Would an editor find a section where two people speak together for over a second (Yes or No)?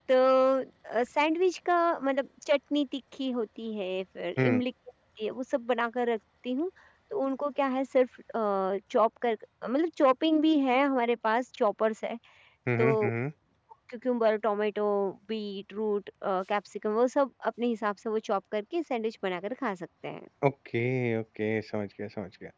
No